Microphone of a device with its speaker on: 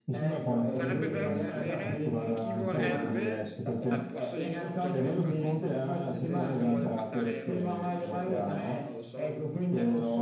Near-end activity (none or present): present